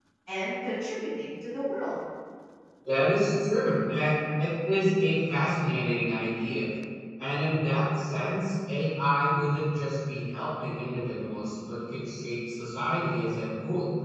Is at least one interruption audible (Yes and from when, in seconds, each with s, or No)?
No